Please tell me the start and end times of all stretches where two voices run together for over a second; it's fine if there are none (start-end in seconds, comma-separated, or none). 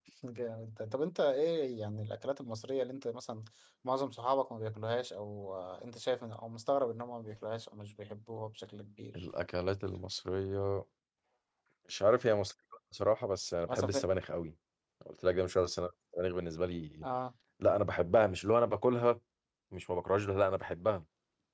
none